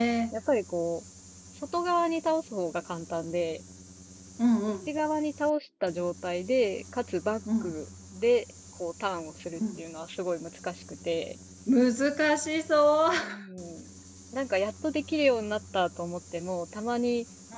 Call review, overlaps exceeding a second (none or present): none